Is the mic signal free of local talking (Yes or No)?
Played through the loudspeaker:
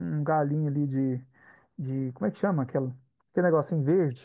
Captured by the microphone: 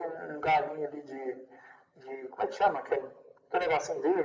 Yes